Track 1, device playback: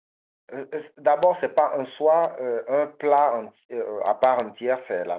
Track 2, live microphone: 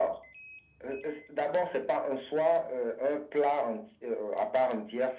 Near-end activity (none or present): none